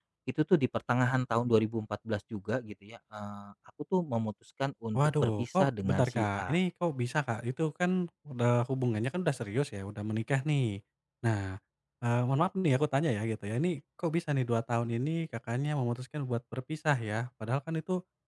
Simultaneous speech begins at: 4.9 s

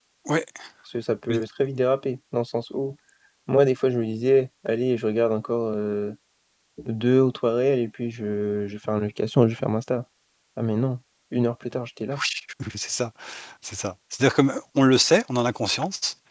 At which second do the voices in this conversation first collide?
none

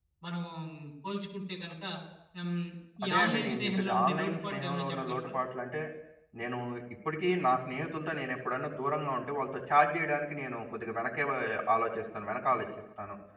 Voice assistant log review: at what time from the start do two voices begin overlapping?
3.0 s

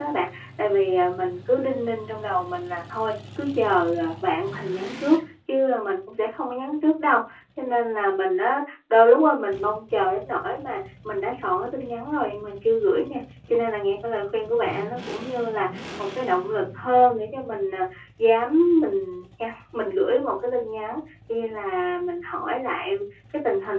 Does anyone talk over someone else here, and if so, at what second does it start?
none

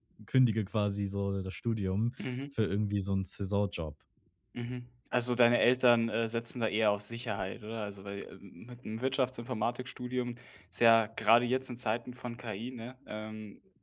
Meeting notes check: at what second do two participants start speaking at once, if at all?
none

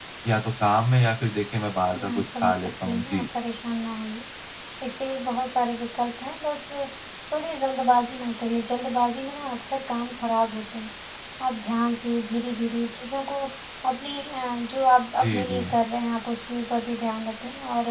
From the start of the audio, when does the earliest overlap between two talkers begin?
1.9 s

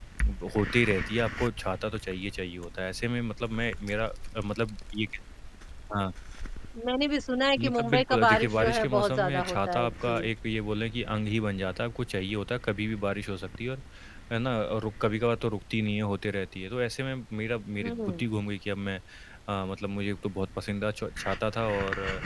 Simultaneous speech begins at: 7.6 s

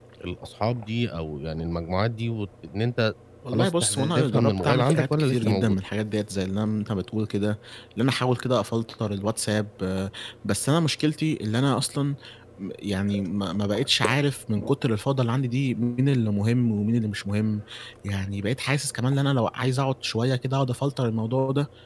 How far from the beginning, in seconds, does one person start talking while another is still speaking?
3.5 s

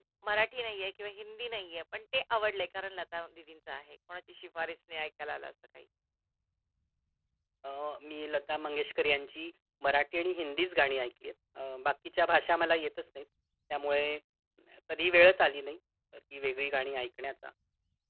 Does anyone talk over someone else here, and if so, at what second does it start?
none

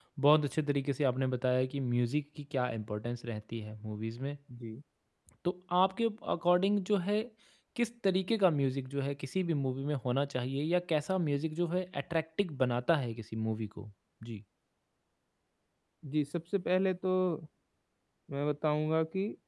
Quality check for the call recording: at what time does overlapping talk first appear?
none

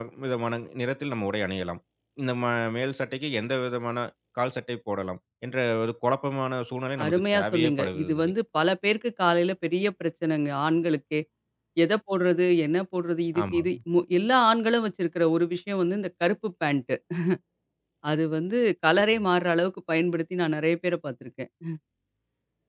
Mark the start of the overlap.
7.0 s

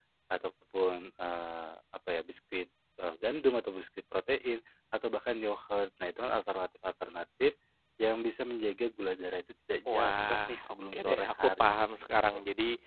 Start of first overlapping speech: 9.9 s

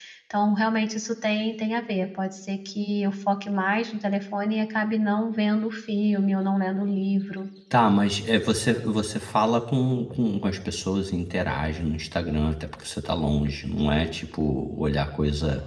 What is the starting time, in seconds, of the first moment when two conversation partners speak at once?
none

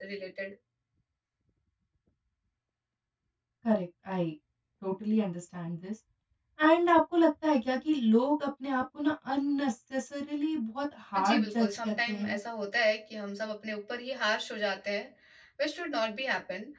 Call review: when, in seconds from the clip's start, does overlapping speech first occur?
11.1 s

